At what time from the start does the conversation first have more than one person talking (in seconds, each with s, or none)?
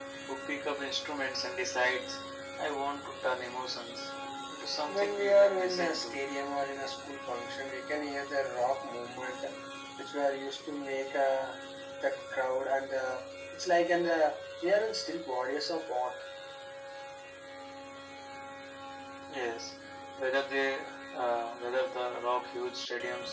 4.9 s